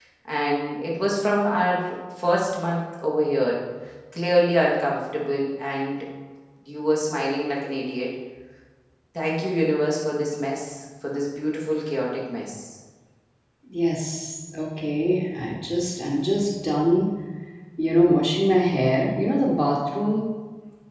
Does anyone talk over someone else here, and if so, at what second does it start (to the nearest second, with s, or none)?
none